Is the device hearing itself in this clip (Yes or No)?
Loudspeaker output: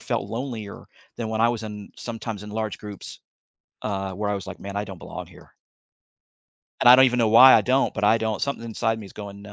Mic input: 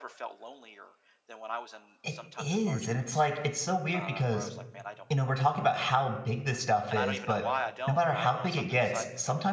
Yes